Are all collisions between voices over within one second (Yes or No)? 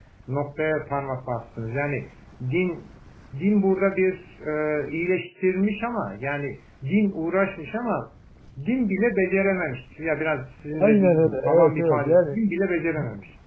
No